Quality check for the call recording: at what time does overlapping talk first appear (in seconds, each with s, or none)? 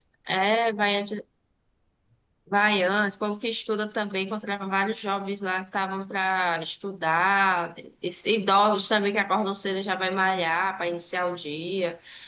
none